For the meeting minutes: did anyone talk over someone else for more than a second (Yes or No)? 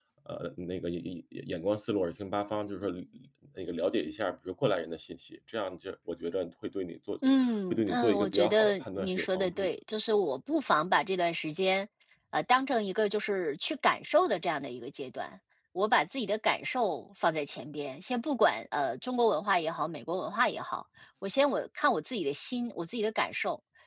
Yes